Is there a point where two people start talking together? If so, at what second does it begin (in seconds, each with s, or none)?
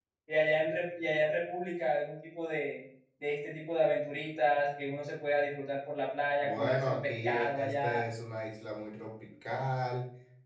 6.4 s